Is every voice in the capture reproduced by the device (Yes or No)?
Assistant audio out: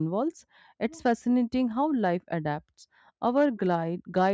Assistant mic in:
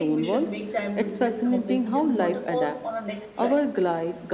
No